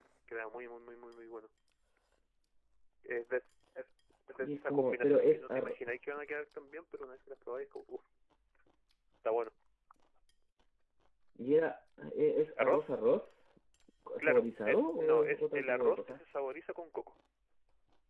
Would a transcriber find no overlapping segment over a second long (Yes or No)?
No